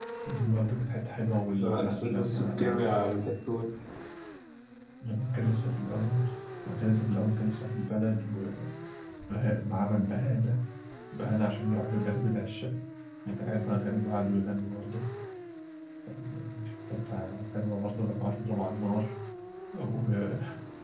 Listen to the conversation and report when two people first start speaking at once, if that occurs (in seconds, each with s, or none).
1.6 s